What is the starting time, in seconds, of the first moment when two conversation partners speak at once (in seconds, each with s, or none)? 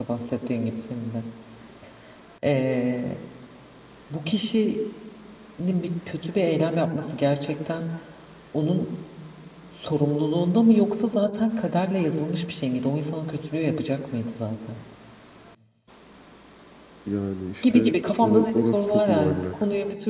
17.6 s